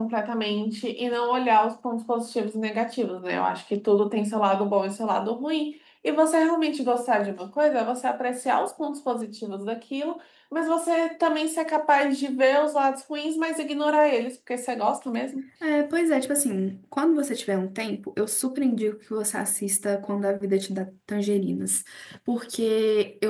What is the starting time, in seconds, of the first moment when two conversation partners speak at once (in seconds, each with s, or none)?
none